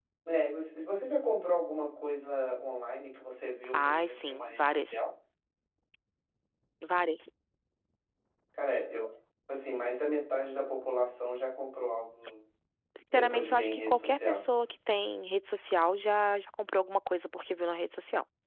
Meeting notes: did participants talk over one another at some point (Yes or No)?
Yes